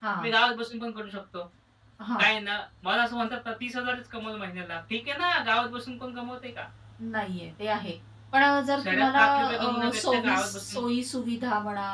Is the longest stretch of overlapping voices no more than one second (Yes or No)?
No